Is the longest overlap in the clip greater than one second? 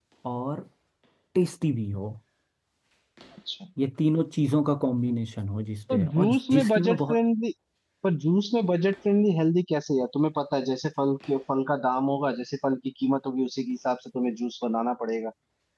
Yes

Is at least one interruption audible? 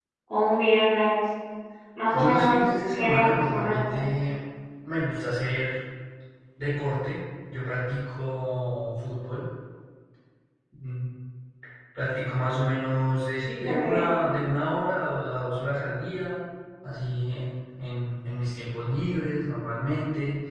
Yes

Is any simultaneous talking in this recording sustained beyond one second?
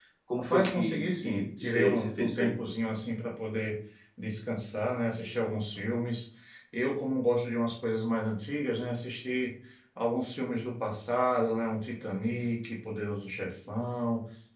Yes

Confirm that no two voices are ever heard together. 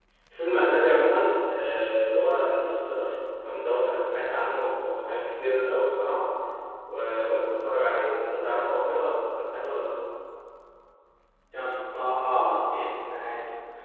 Yes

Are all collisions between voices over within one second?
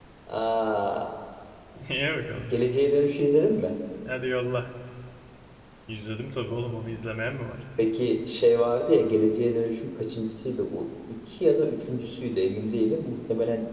Yes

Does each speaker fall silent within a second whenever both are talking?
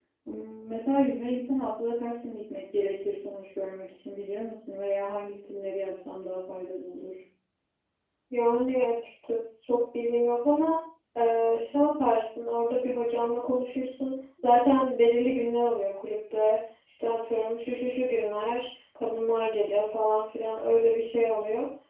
Yes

